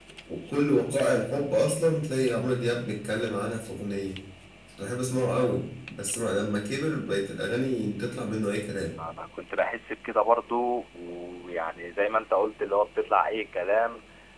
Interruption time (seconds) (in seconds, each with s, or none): none